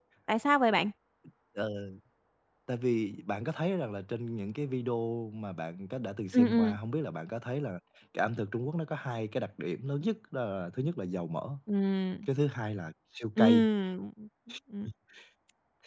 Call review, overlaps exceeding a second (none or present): none